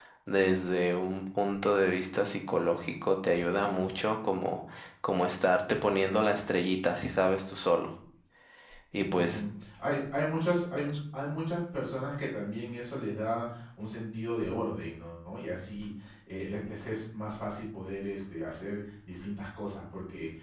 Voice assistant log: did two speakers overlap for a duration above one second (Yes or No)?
No